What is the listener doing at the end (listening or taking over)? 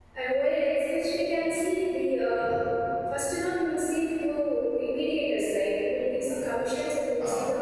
listening